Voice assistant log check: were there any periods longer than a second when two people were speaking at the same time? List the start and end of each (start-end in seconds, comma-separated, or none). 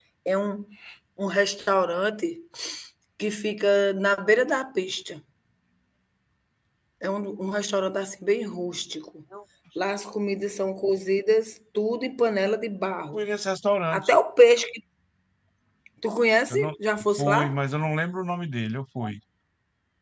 none